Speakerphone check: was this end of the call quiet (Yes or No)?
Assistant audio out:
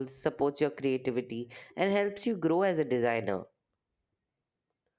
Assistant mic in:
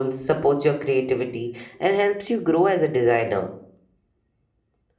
Yes